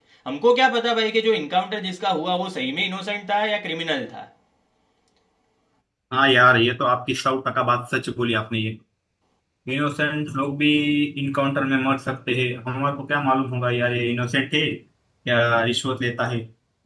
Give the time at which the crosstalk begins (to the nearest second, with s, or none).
none